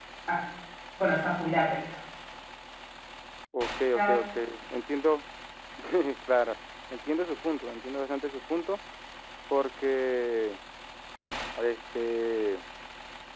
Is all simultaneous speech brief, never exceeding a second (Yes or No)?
Yes